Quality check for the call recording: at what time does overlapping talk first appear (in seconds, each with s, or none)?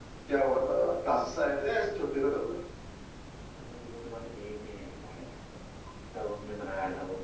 none